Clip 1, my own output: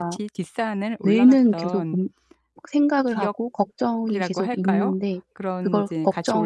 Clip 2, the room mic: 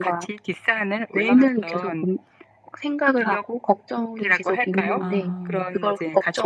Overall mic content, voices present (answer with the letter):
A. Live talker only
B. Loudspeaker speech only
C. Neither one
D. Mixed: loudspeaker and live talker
D